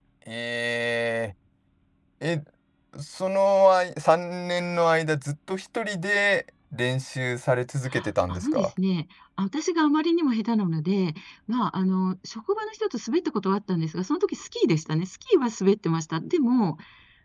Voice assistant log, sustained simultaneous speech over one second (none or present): none